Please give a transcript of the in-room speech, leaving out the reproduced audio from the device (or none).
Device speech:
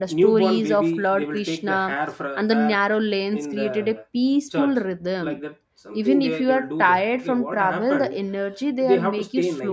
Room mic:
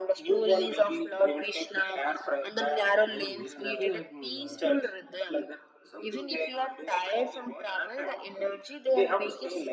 and he's looking like mm, uh,